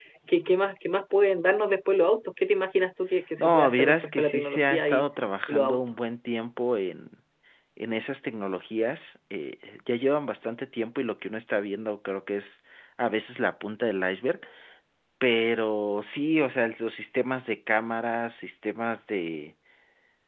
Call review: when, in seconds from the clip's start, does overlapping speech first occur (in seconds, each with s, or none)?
3.4 s